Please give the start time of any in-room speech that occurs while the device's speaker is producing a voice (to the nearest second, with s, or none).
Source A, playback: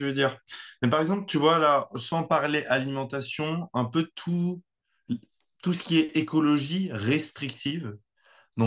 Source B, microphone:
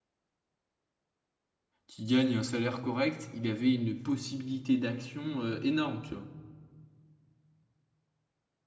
2 s